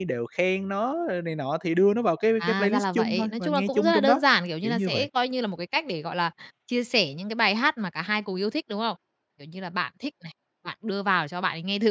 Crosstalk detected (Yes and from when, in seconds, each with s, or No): Yes, from 2.4 s